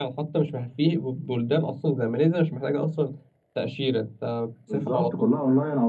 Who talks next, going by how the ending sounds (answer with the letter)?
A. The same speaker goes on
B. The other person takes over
B